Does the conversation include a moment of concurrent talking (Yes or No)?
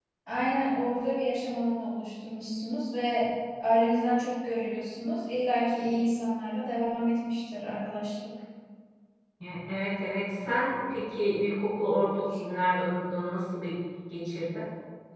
No